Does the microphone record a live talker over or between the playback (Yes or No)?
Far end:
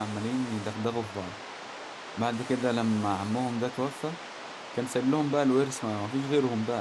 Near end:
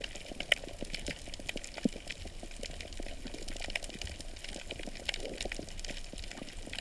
No